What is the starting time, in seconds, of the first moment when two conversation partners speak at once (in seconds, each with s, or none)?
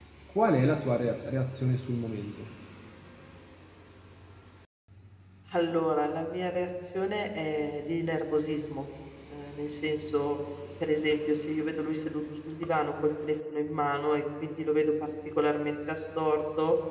none